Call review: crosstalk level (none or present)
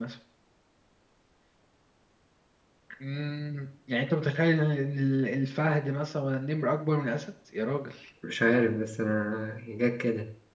none